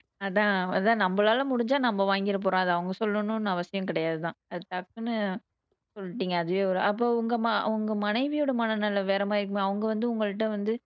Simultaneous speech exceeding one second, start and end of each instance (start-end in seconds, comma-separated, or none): none